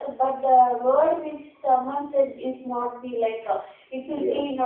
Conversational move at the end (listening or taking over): listening